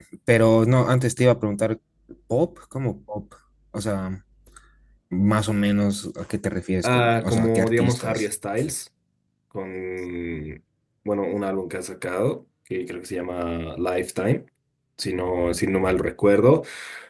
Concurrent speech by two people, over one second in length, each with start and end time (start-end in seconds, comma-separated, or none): 6.8-8.2